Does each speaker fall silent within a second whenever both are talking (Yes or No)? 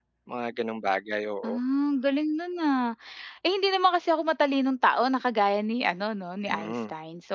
Yes